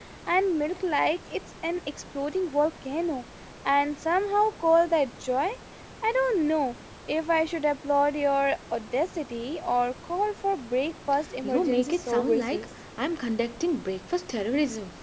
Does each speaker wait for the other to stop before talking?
No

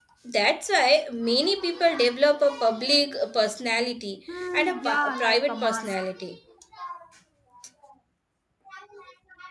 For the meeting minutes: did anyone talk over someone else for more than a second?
Yes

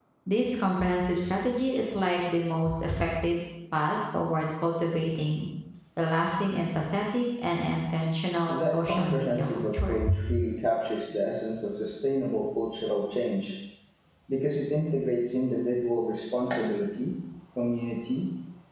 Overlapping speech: Yes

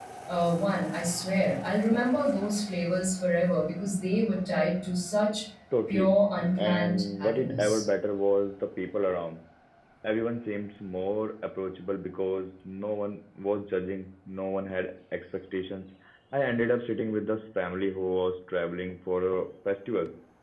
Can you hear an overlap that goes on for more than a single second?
Yes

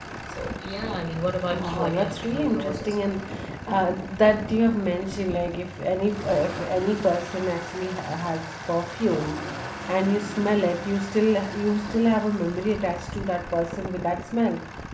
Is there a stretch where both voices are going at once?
Yes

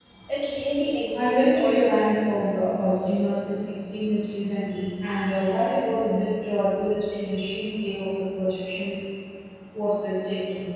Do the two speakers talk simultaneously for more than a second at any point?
Yes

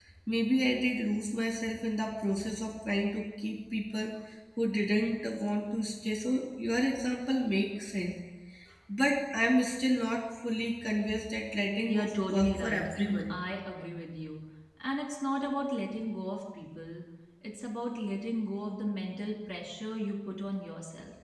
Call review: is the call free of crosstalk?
No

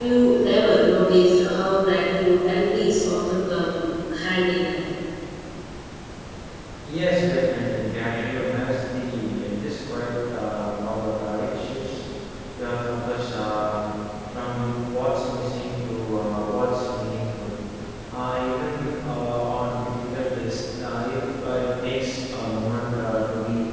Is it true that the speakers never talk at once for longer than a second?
Yes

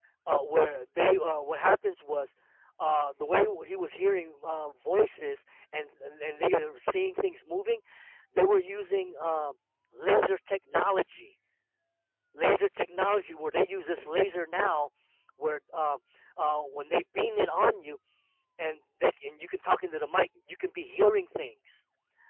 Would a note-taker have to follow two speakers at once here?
No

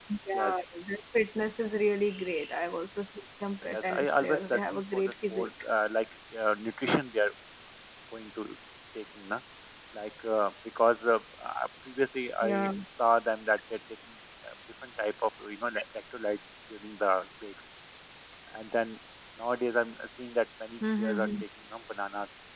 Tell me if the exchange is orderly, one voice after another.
No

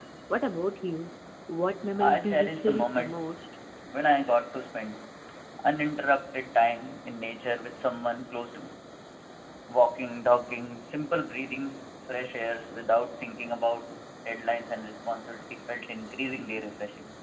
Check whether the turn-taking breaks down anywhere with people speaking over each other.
Yes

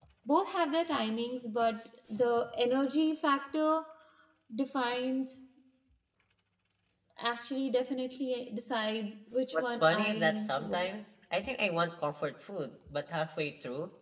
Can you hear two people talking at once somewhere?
Yes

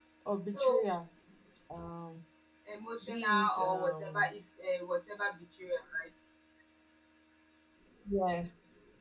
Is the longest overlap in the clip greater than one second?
Yes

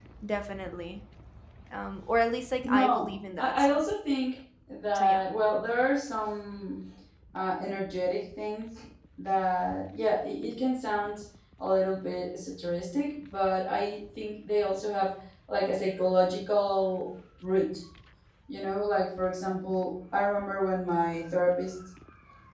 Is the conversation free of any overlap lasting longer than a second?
No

